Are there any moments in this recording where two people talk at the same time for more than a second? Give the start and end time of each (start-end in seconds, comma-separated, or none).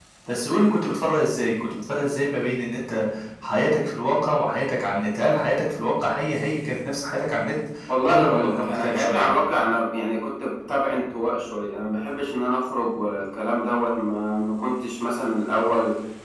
8.1-9.3